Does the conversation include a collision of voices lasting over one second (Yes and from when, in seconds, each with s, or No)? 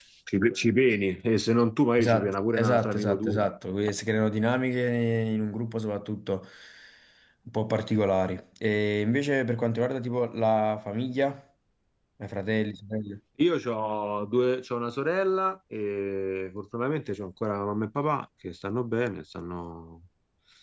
Yes, from 2.0 s